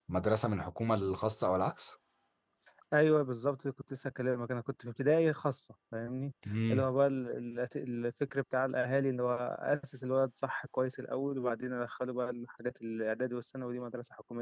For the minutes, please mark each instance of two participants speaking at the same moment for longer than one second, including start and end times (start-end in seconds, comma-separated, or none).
none